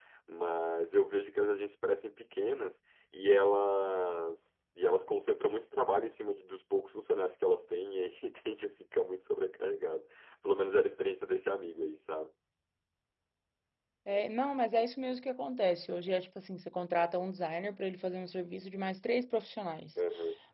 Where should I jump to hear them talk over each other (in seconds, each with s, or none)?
none